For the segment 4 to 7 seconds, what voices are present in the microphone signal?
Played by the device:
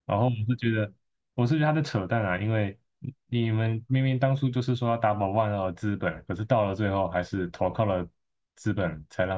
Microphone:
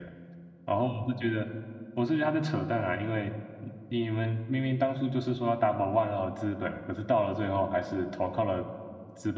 echo only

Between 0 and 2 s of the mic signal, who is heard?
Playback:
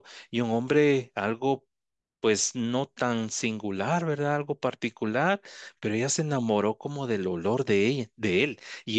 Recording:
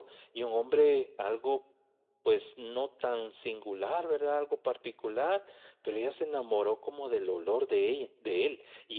echo only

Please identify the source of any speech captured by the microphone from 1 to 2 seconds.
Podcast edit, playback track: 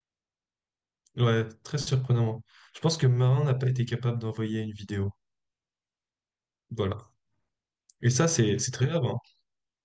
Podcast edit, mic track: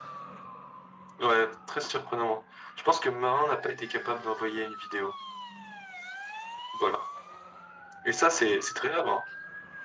echo only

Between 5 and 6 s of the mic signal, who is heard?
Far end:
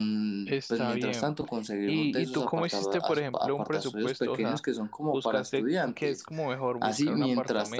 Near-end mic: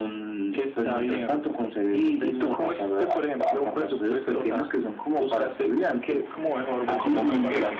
echo only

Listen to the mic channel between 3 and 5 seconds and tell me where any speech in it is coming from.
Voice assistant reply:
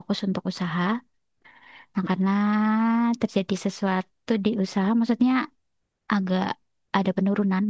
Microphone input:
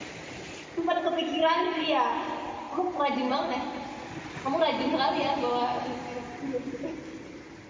user only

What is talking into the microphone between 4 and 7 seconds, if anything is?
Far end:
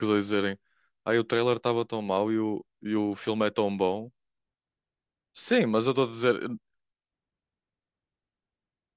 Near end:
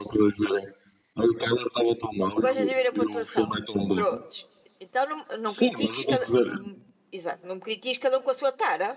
both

